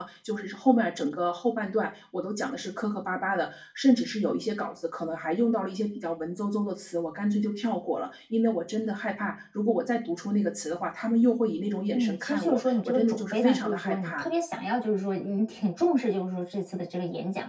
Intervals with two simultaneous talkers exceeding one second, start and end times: 11.9-14.2

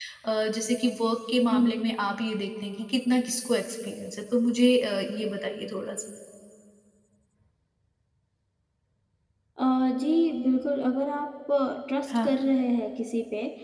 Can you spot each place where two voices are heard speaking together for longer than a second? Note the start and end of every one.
none

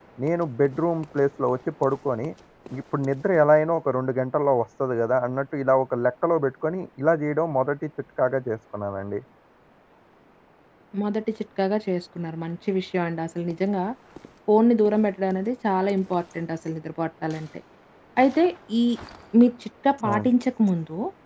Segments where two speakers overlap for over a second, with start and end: none

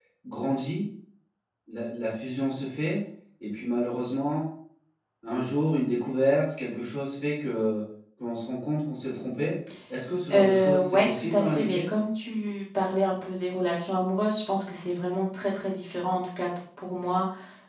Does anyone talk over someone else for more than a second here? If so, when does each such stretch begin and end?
10.3-11.8

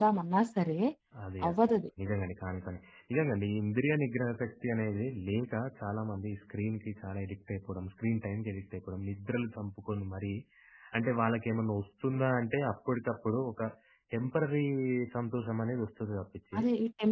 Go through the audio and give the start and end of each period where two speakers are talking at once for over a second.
none

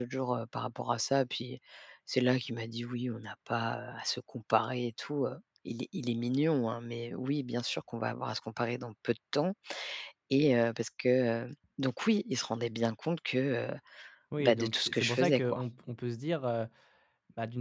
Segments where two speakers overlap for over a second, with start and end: 14.4-15.6

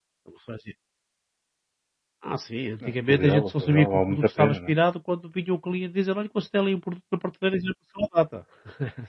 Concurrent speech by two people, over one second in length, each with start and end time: 2.9-4.7

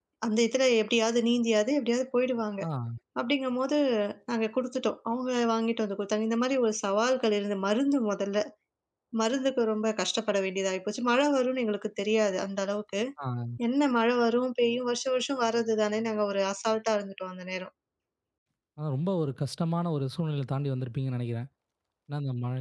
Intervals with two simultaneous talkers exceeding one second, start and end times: none

